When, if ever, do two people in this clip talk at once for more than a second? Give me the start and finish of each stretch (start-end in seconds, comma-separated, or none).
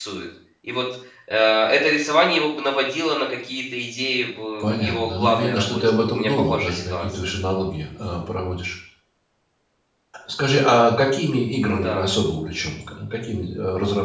4.6-7.0